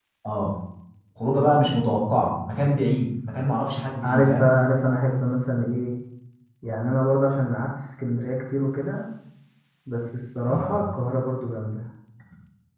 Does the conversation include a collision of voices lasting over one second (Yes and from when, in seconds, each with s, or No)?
No